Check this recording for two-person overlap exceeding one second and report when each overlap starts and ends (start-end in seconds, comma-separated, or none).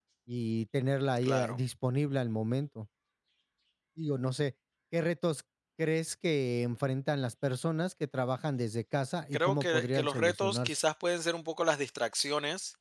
9.3-10.8